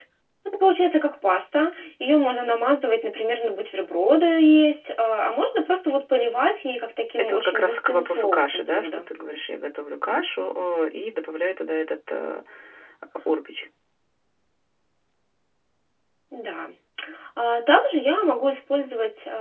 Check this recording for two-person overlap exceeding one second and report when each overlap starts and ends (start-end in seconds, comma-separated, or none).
7.2-9.1